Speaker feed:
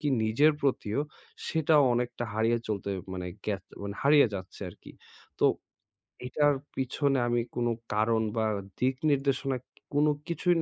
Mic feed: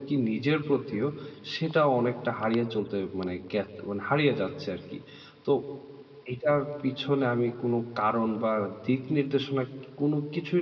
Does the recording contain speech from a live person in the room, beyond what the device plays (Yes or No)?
No